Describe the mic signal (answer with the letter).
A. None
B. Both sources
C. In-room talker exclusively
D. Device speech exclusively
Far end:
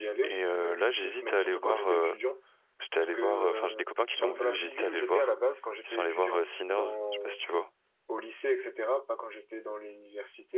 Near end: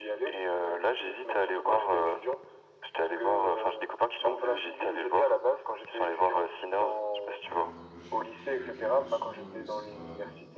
B